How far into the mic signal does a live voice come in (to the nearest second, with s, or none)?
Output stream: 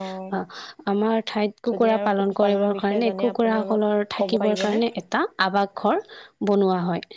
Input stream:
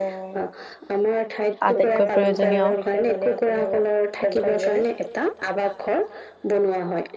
2 s